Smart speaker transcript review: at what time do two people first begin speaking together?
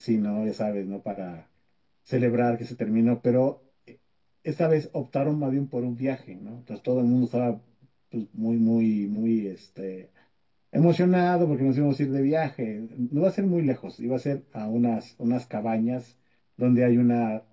none

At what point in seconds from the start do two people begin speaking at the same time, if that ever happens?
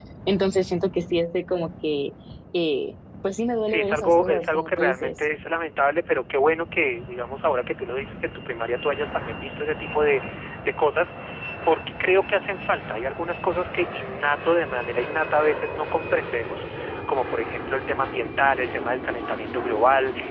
3.6 s

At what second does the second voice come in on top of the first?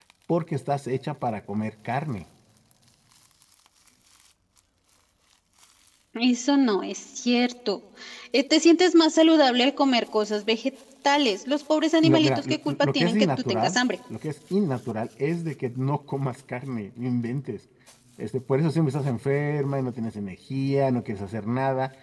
12.0 s

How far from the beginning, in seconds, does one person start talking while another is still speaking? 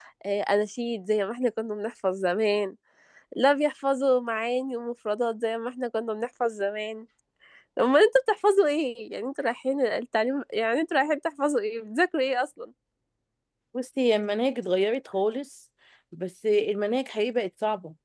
none

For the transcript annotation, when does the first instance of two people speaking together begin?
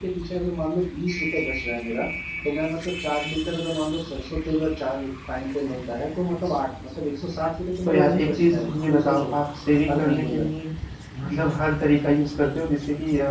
7.8 s

